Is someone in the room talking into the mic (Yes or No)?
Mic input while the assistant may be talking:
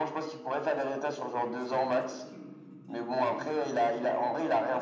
Yes